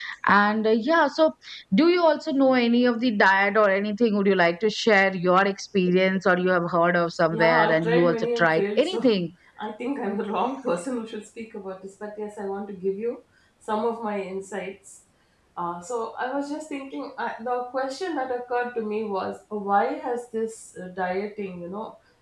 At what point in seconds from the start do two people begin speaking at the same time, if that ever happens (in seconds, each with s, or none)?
7.3 s